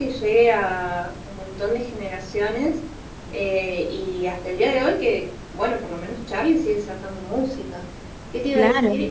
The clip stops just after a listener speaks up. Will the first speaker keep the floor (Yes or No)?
Yes